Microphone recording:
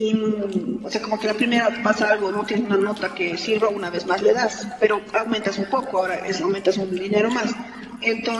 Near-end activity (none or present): none